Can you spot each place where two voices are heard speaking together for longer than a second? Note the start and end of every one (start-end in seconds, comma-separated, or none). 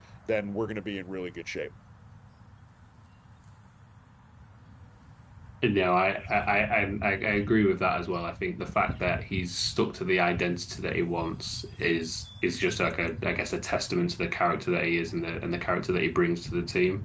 none